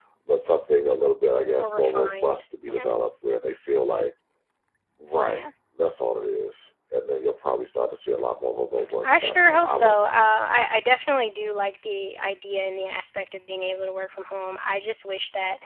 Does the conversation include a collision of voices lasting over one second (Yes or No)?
Yes